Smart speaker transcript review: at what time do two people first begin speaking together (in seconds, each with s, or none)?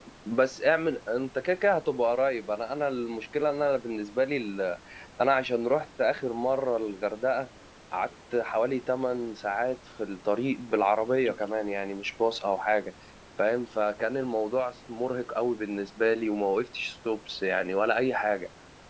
none